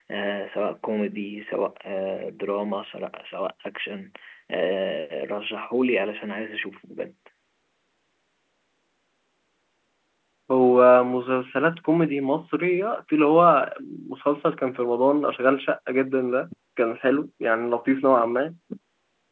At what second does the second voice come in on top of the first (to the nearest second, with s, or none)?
none